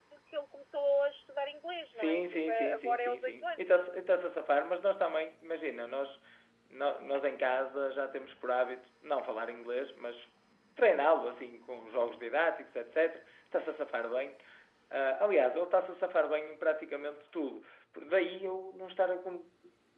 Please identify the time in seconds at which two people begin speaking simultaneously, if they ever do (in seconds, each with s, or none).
1.9 s